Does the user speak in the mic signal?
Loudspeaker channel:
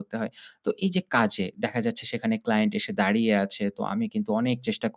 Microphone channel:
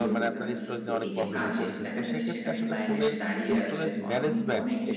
Yes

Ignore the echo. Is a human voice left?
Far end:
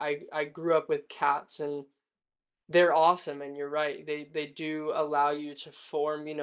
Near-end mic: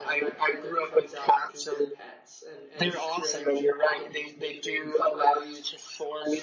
Yes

